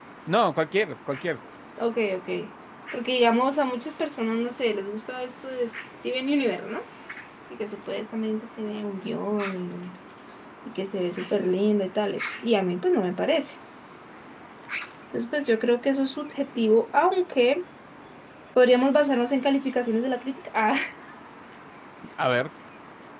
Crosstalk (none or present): none